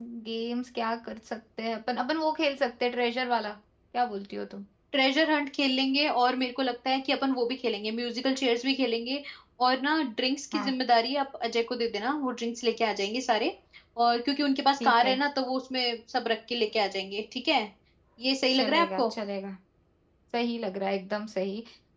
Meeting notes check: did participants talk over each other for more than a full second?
No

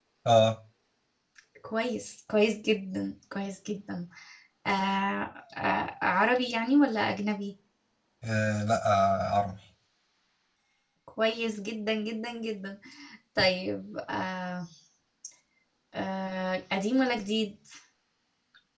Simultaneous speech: No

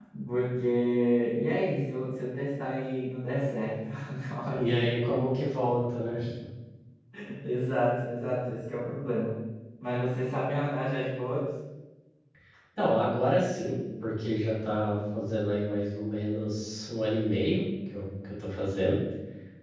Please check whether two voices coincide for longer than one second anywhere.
No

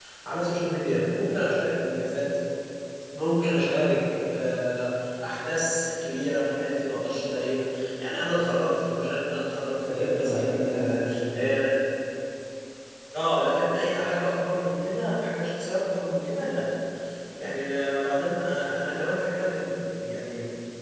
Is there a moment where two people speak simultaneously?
Yes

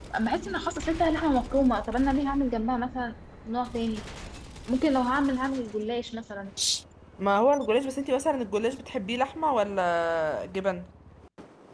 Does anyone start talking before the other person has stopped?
No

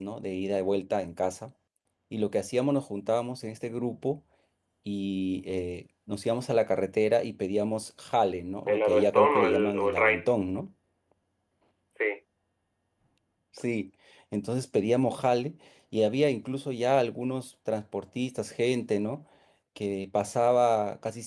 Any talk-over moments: Yes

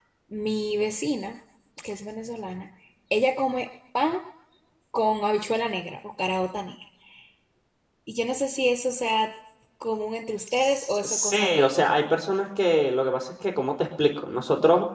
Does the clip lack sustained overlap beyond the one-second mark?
No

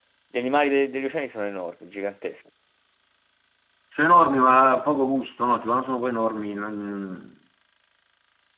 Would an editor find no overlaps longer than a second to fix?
Yes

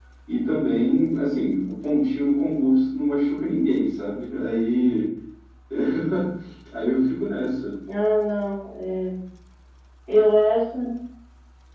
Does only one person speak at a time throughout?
Yes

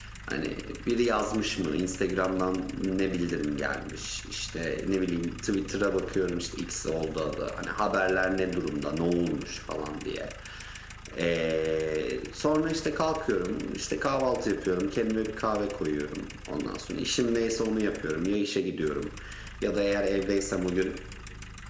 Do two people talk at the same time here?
No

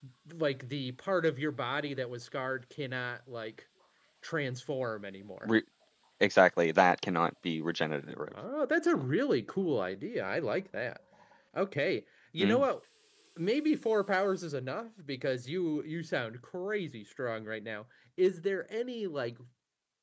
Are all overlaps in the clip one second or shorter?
Yes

